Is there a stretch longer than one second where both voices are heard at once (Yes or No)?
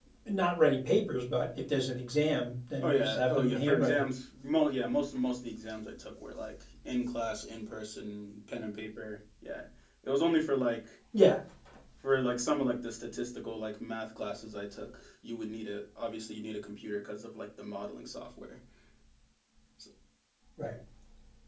Yes